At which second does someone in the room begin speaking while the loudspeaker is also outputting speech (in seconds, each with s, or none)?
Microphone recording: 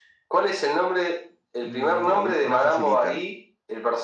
1.6 s